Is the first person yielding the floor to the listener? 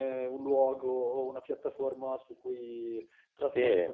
Yes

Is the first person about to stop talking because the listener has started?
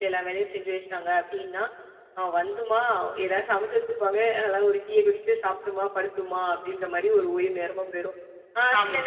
No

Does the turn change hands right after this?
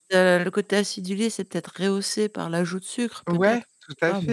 Yes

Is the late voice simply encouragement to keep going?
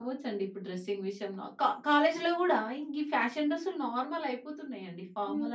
No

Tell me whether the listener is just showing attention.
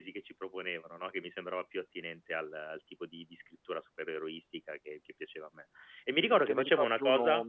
No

